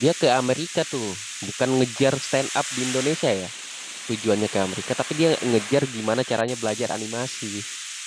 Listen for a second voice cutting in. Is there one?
No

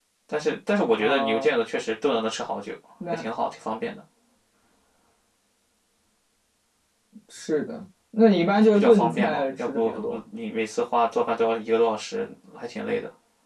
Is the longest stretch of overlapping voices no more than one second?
No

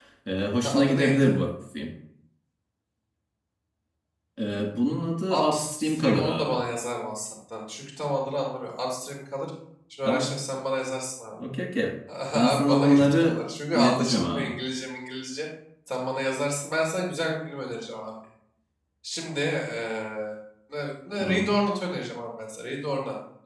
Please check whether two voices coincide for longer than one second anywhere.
Yes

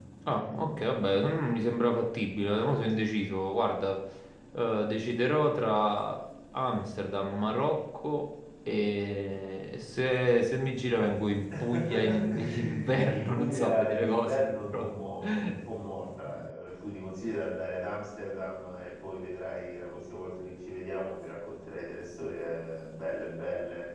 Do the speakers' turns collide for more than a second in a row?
Yes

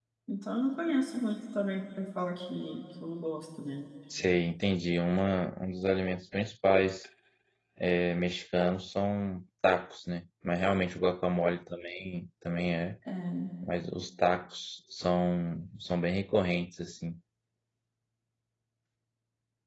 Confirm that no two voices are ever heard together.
Yes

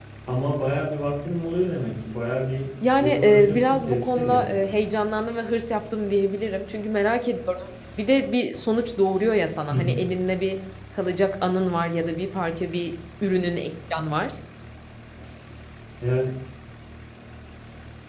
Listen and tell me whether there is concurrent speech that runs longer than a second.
Yes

